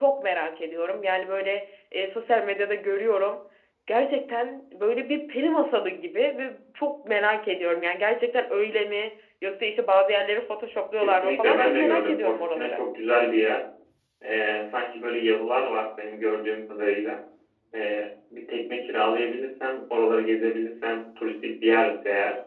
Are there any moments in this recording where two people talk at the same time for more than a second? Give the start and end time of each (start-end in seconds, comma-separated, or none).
11.0-12.8